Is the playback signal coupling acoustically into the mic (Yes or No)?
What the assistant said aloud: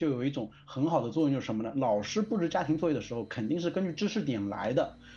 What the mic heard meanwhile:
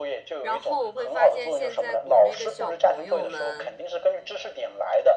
Yes